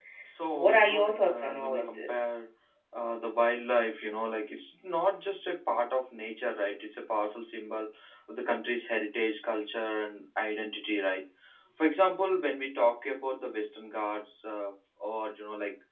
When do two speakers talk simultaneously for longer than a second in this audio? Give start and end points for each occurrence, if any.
0.5-2.3

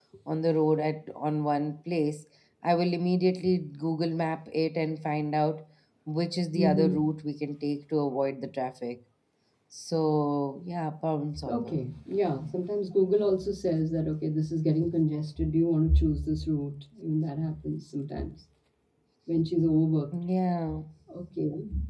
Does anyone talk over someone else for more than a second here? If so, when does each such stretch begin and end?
none

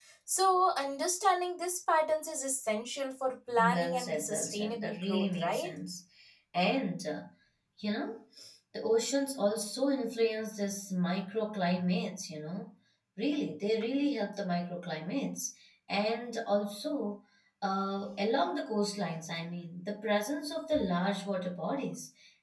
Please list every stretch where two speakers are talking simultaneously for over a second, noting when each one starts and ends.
3.6-5.7

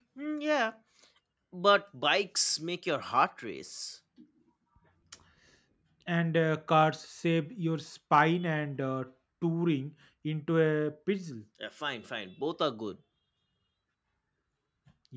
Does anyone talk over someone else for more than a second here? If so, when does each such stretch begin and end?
none

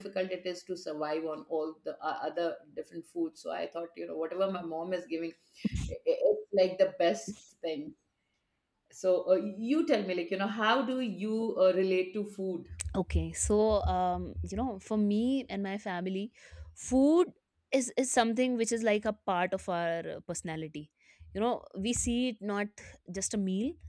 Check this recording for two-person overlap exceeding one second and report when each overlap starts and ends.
none

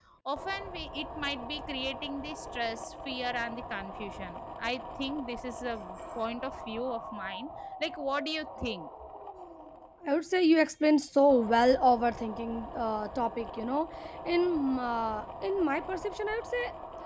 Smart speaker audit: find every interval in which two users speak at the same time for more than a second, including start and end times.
none

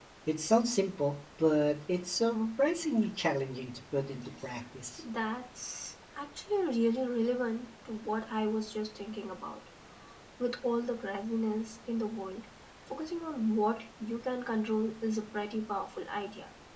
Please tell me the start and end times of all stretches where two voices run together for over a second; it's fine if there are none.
none

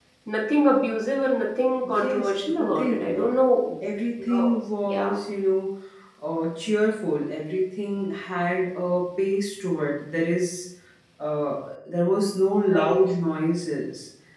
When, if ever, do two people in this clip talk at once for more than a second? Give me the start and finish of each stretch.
1.9-3.3

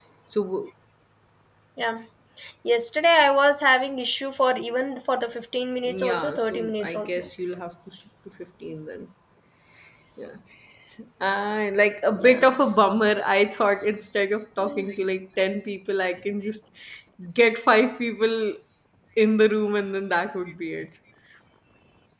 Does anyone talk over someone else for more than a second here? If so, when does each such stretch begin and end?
5.9-7.3

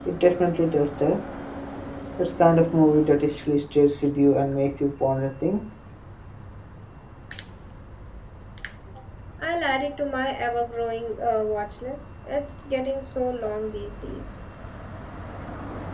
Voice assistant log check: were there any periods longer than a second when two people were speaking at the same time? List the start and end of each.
none

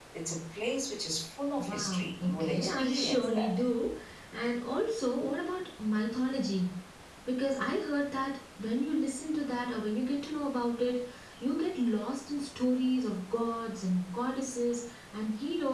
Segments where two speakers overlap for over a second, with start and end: 1.7-3.6

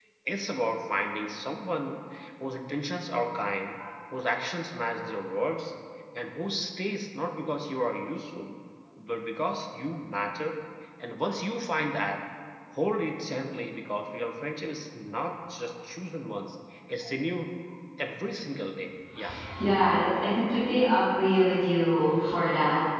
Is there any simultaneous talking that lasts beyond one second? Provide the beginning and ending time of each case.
none

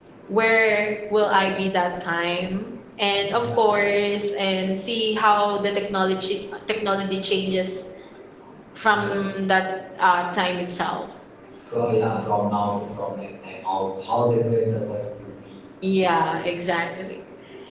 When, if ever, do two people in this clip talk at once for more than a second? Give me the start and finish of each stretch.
none

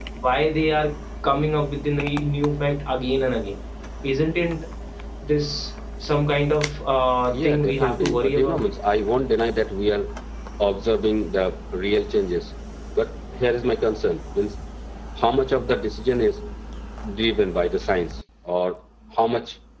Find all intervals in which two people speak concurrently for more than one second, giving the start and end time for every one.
7.3-8.6

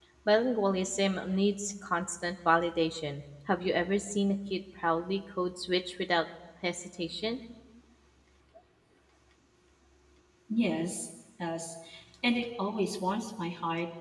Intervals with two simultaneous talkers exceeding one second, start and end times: none

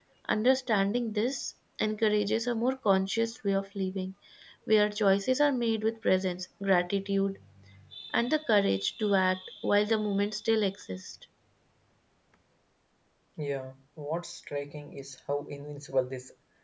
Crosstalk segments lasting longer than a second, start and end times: none

